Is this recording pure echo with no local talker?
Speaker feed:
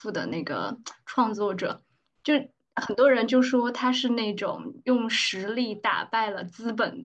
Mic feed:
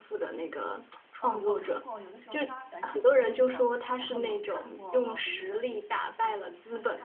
No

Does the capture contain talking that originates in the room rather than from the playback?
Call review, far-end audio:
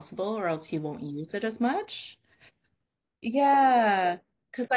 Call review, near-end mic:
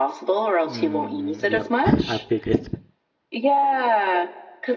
Yes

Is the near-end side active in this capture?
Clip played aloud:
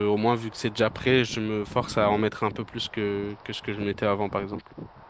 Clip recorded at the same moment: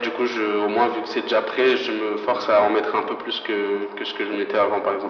No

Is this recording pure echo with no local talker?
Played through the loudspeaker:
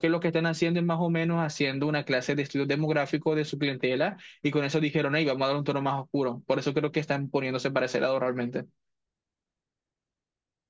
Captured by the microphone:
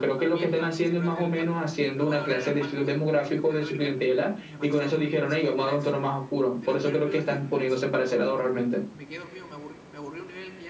No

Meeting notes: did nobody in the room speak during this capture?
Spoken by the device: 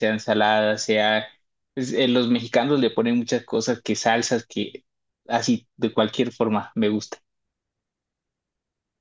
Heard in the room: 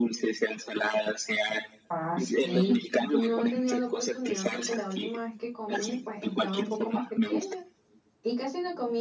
No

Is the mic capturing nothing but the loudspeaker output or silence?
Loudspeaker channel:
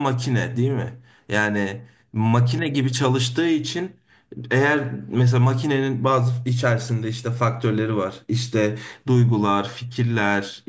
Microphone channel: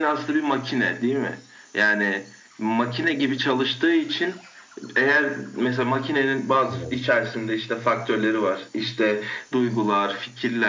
No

